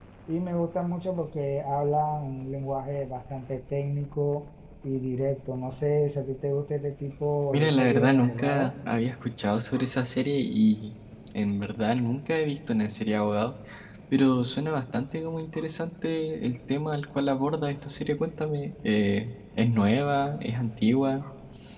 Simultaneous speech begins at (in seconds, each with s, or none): 7.5 s